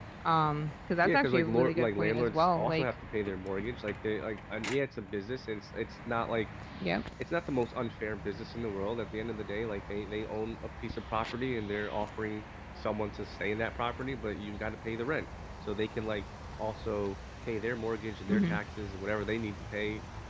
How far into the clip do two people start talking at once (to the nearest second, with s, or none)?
1 s